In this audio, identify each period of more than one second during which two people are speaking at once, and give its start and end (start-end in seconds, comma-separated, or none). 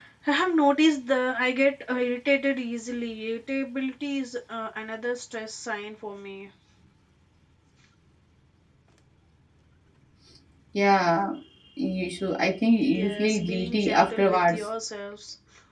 12.8-14.7